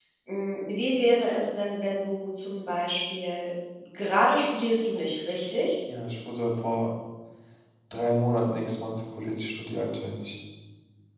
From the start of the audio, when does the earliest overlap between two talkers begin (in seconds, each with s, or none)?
none